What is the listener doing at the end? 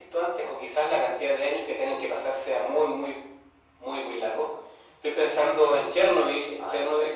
listening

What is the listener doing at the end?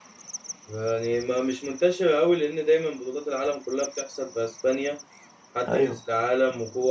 listening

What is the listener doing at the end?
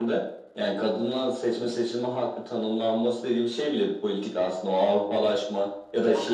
listening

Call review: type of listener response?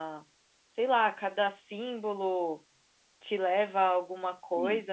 taking over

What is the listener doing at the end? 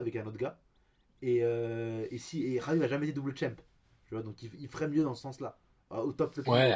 taking over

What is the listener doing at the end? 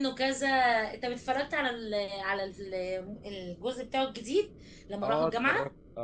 taking over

